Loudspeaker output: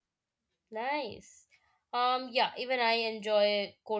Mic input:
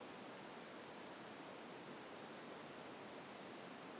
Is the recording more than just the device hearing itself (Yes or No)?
No